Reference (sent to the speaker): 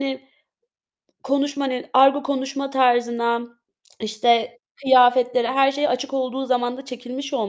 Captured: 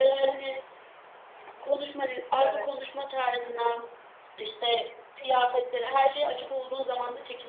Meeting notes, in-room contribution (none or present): present